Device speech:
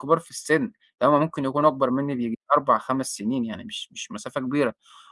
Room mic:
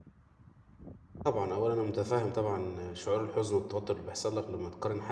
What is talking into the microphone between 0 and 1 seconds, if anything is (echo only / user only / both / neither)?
neither